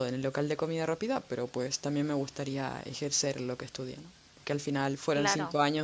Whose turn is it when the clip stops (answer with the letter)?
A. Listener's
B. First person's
B